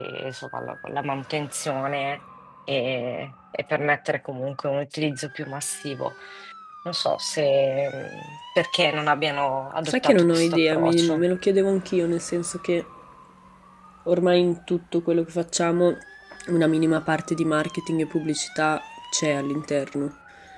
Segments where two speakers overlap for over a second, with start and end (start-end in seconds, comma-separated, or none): 9.8-11.2